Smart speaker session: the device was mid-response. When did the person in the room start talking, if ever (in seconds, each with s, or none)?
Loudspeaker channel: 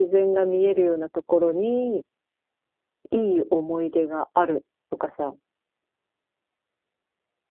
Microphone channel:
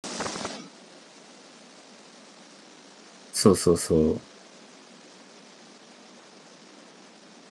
3.3 s